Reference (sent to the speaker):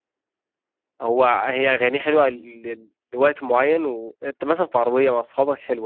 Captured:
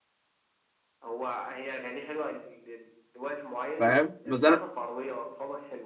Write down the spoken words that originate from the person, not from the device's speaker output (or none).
فاهم بس انا